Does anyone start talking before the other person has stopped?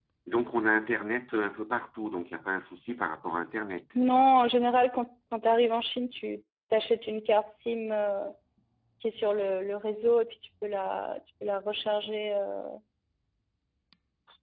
No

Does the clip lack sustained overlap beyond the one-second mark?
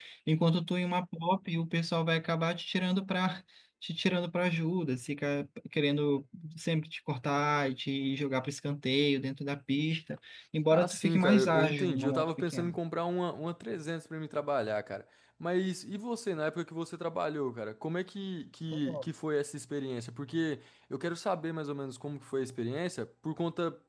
No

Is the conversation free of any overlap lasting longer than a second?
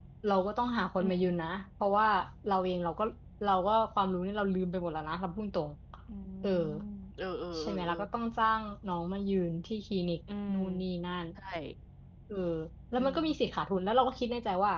Yes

